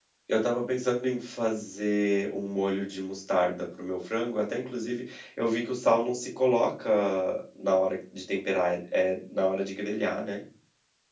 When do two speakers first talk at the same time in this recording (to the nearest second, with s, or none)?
none